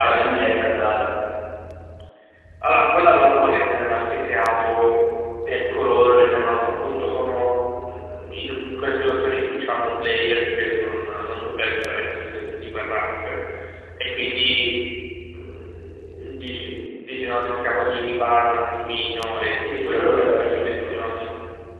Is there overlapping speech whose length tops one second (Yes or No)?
Yes